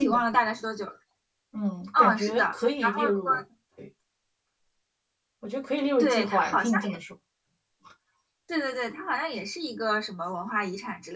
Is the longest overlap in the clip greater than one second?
Yes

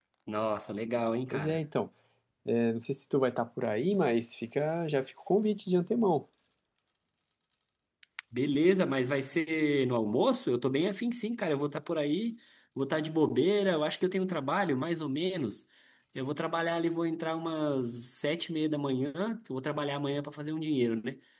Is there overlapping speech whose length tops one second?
No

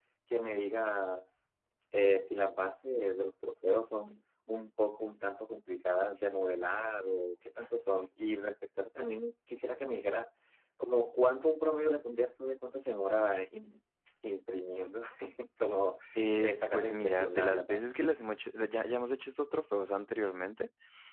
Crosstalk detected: Yes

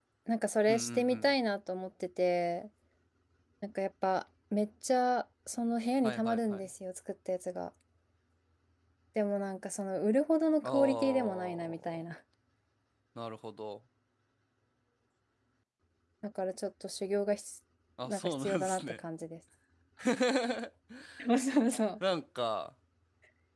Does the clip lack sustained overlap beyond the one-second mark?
No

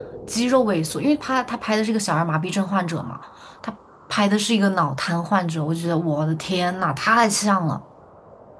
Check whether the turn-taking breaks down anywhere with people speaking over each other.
No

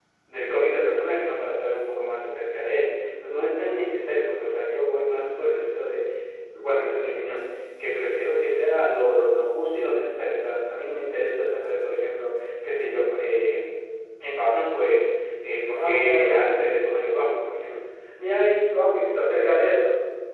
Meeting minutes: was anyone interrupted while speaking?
Yes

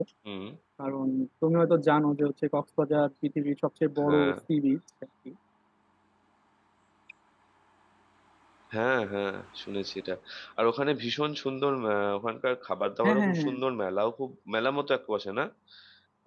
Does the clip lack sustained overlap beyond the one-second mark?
Yes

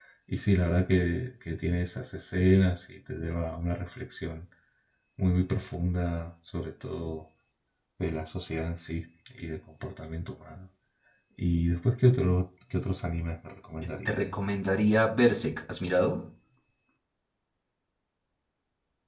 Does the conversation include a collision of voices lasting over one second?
No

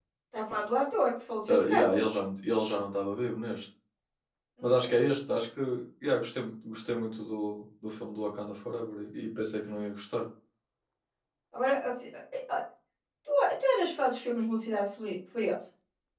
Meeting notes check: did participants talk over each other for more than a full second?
No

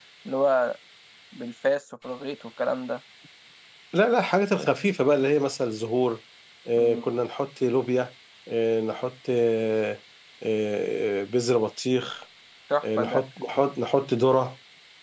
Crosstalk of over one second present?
No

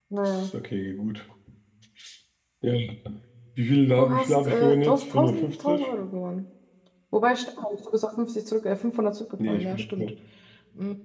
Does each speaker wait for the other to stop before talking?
No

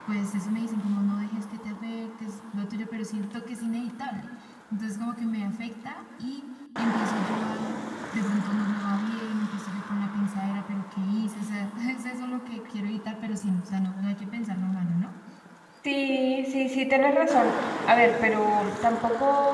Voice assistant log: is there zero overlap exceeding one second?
Yes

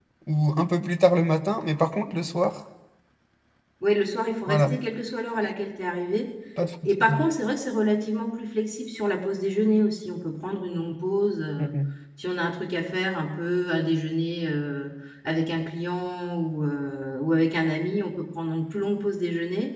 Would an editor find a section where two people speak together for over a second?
No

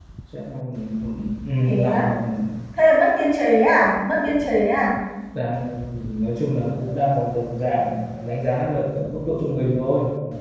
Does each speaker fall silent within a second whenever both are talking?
Yes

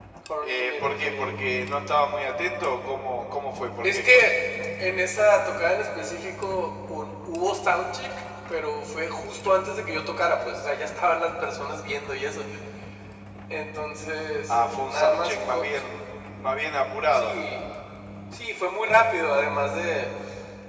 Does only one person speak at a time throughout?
No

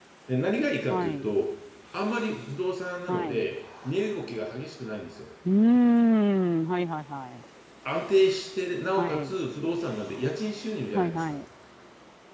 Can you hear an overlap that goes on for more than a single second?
No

